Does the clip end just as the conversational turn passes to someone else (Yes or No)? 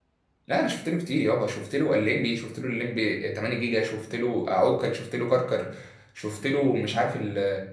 No